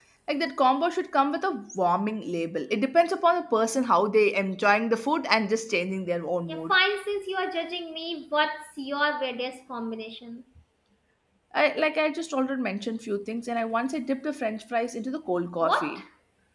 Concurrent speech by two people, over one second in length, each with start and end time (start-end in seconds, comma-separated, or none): none